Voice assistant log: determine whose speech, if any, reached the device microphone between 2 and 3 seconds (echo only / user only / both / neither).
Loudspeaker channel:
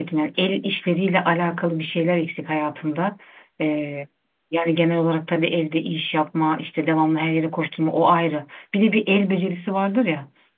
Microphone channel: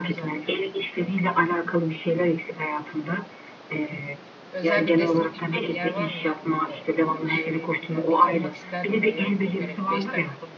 echo only